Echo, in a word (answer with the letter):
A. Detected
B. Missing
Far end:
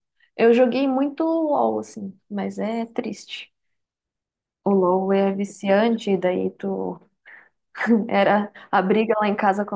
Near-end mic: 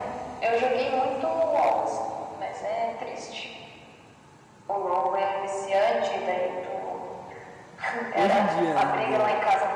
A